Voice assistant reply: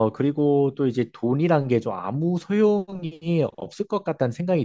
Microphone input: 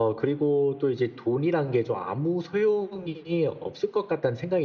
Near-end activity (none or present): none